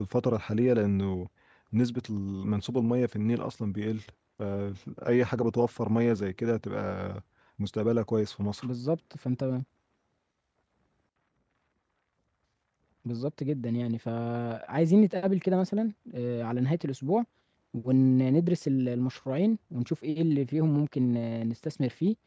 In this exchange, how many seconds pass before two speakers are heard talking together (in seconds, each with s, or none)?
none